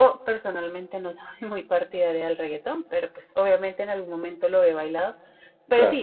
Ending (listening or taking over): listening